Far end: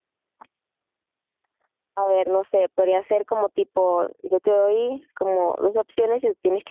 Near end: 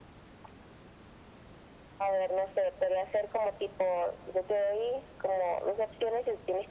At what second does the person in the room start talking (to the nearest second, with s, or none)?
none